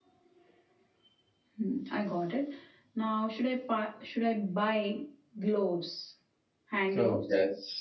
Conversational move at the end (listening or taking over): taking over